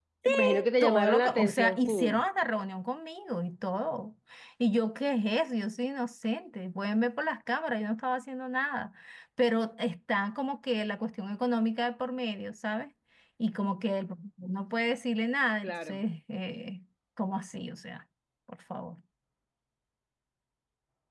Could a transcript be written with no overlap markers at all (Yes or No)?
No